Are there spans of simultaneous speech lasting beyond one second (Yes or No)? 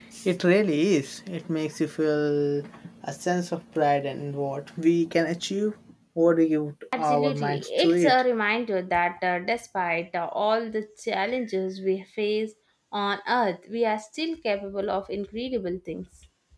Yes